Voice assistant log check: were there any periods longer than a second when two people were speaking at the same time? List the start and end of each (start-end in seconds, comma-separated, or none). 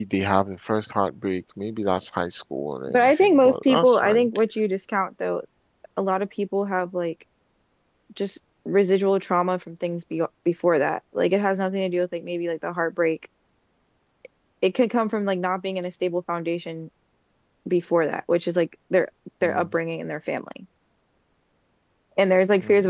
2.9-4.3